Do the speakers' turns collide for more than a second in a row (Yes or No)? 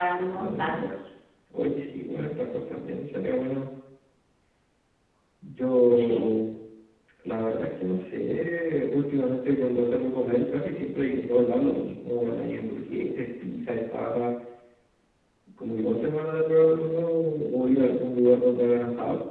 No